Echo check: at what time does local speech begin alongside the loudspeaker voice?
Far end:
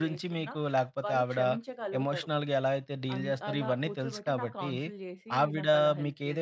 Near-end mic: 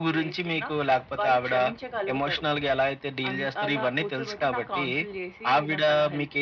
none

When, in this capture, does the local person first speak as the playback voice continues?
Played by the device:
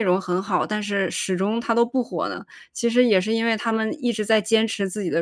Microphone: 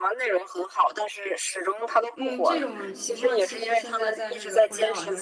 2 s

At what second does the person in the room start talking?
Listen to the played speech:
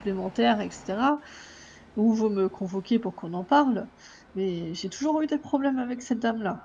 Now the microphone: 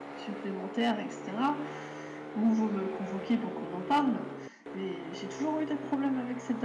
none

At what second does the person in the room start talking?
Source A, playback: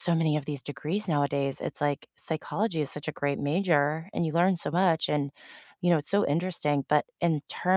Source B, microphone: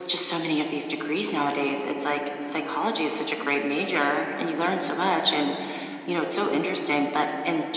none

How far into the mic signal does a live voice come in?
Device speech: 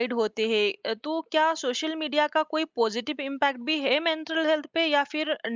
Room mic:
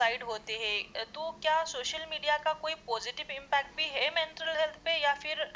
none

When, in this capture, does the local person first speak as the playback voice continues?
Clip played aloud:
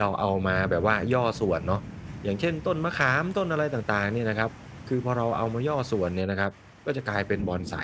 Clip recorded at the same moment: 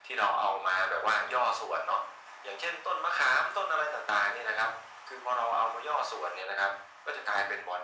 none

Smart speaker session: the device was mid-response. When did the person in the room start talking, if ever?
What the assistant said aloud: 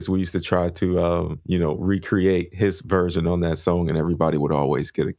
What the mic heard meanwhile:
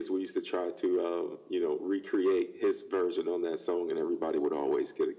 none

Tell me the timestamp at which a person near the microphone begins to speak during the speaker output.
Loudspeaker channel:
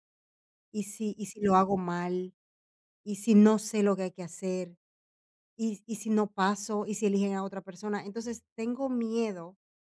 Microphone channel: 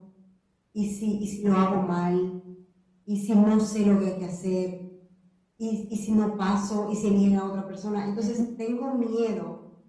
8 s

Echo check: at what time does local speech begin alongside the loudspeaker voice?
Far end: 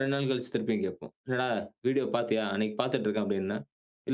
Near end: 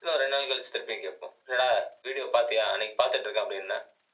none

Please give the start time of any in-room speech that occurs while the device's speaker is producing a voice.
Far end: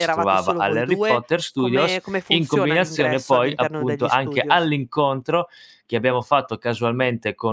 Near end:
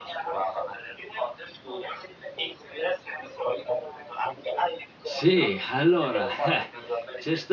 5 s

